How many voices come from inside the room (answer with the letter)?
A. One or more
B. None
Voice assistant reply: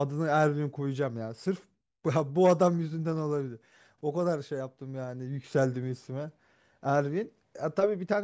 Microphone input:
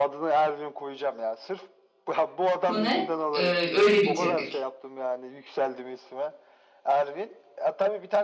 A